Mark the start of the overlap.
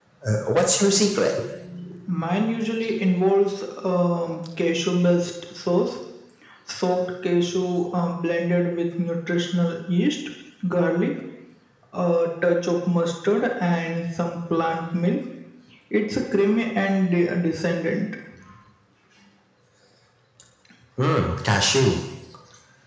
none

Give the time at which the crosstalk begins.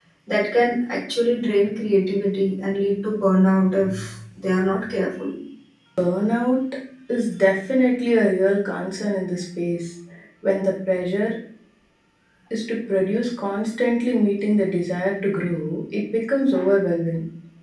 none

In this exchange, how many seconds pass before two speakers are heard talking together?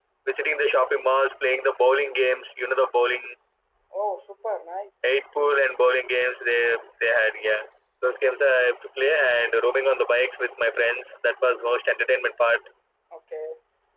none

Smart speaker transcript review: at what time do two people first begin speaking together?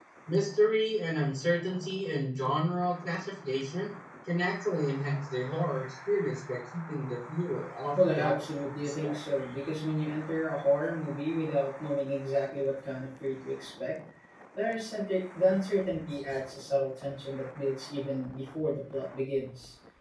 8 s

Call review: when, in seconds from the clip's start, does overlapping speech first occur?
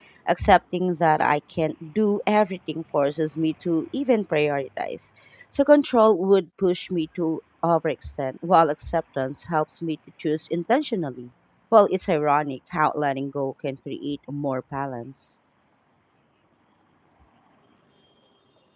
none

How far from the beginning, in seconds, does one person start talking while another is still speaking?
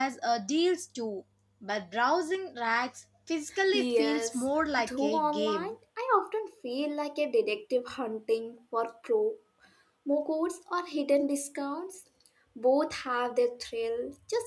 4 s

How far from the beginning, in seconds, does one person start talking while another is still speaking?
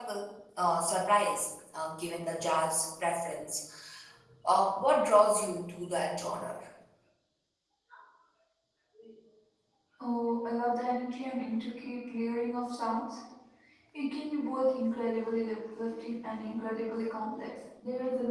none

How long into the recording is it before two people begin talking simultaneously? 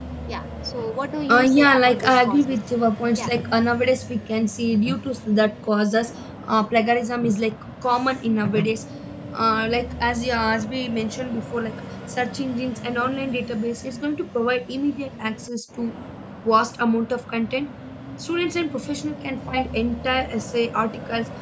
1 s

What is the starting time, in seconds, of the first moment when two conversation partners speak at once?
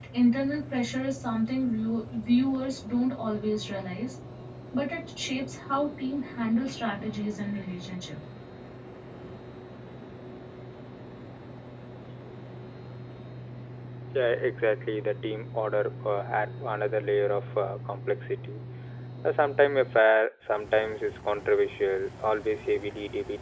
none

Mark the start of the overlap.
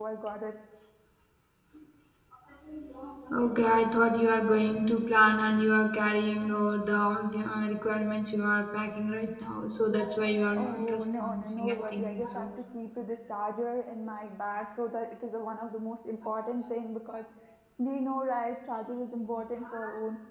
11 s

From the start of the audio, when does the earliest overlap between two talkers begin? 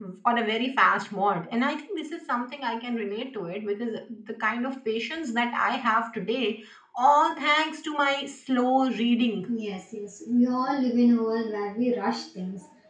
none

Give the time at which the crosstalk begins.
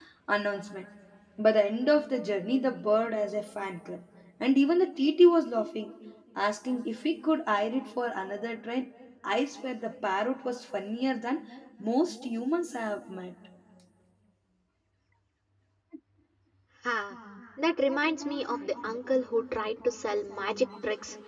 none

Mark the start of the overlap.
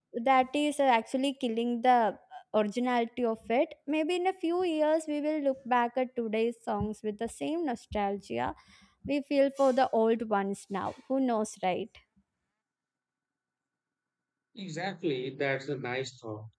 none

